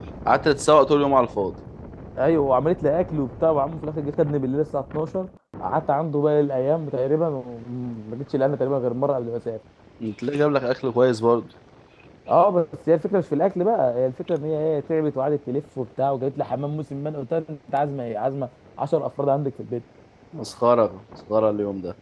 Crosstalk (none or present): none